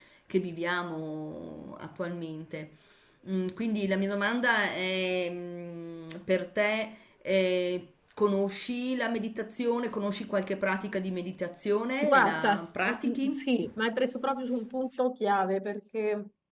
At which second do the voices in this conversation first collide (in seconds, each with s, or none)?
12.0 s